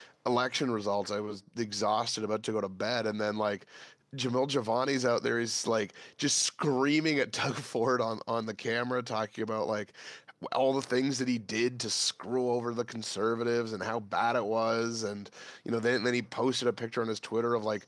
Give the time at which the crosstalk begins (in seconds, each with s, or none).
none